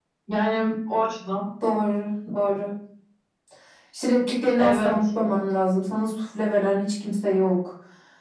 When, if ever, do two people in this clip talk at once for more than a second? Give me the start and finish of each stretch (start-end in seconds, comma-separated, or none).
none